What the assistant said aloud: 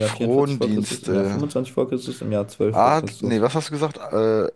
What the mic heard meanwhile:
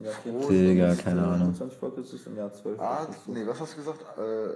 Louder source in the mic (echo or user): user